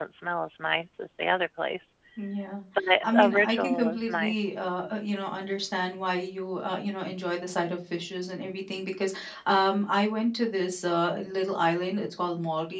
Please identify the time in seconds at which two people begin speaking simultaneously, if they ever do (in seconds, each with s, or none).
3.0 s